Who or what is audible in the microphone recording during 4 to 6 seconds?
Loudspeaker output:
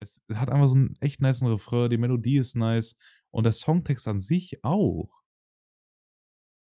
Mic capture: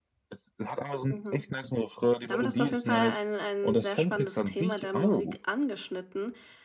both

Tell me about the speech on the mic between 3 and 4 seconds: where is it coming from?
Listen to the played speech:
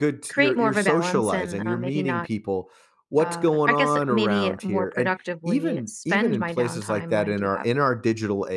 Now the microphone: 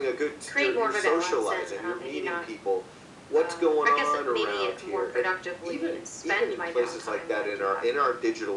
echo only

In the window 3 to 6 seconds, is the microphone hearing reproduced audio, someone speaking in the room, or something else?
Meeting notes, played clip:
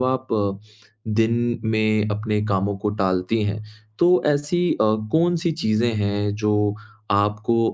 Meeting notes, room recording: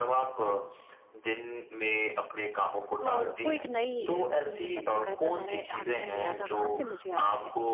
both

